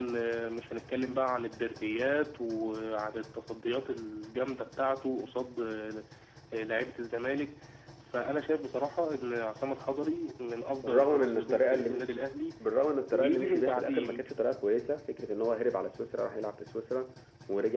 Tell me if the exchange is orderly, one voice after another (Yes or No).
No